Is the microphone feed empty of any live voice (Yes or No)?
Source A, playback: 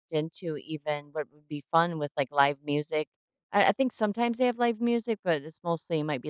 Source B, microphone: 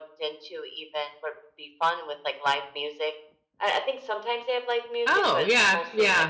No